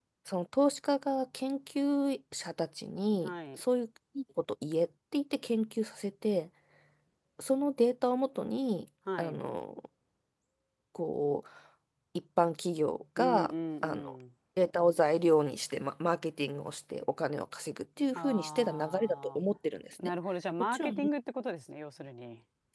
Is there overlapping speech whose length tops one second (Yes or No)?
Yes